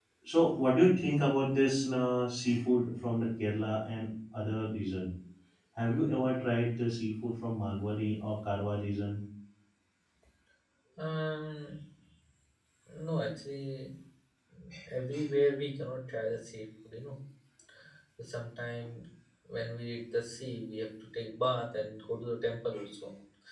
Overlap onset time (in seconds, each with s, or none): none